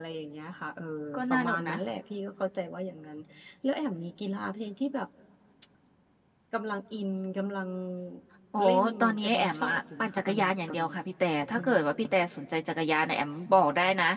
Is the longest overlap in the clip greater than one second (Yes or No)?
Yes